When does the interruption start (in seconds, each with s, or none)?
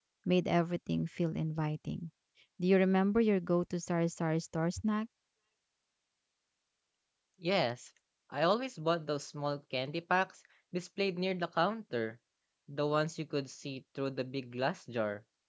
none